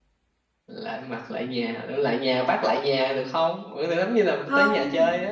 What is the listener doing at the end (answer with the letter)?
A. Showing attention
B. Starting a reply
B